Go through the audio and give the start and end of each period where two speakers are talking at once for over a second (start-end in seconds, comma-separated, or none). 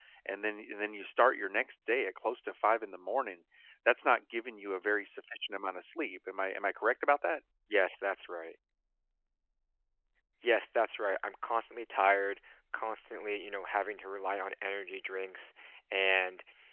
none